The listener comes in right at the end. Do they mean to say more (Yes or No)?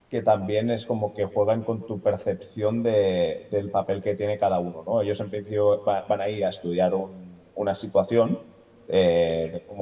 No